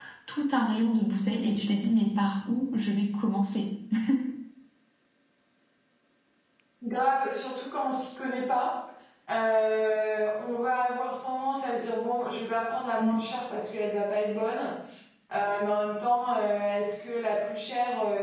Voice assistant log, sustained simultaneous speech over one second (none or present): none